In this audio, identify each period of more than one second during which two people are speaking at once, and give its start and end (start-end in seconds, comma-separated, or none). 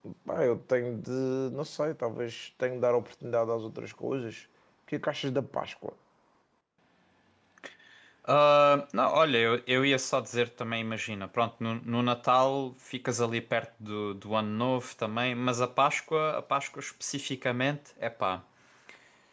none